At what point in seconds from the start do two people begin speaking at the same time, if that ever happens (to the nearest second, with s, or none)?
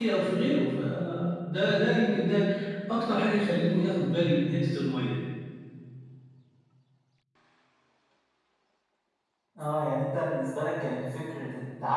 none